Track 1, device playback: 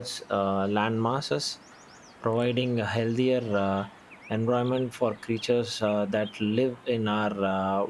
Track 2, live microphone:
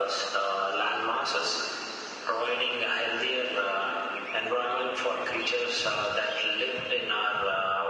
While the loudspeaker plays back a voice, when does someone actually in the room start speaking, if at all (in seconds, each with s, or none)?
none